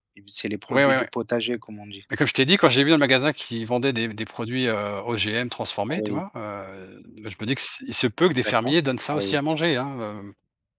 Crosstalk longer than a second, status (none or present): none